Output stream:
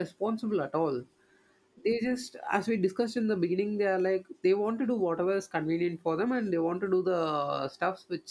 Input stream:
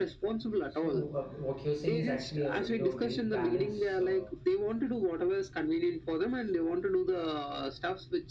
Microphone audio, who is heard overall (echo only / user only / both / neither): both